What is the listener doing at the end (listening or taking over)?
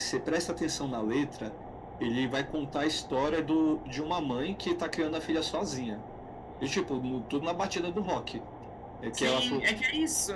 taking over